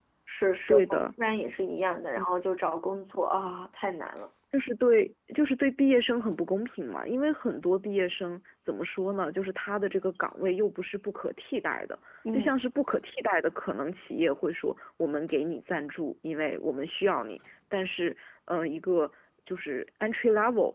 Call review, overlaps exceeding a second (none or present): none